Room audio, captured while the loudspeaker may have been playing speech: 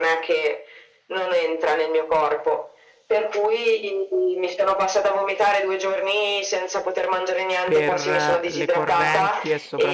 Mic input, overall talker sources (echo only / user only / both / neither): both